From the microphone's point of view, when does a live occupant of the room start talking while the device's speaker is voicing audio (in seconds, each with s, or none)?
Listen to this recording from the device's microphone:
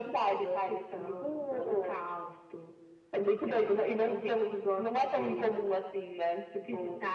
none